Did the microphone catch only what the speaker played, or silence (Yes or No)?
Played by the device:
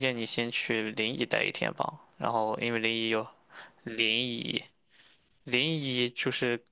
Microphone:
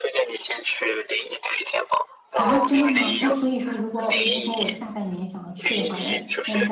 No